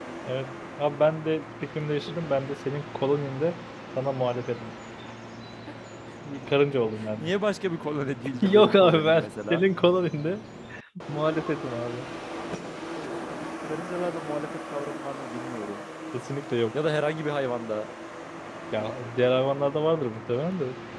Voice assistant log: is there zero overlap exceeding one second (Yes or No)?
No